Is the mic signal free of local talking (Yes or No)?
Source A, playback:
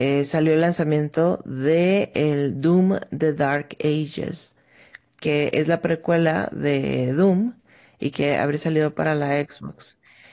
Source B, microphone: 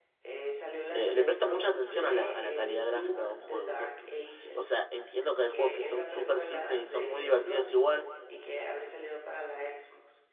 No